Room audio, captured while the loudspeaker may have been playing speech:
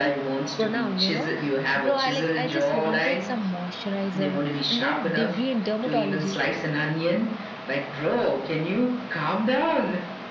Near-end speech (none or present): present